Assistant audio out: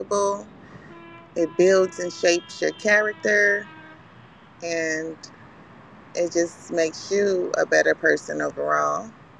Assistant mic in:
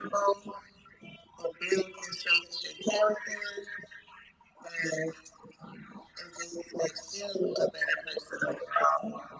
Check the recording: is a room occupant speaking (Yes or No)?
No